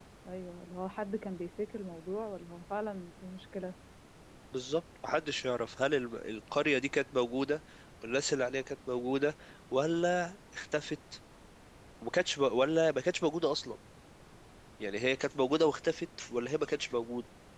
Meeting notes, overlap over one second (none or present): none